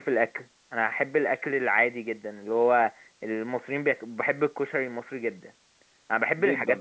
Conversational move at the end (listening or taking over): listening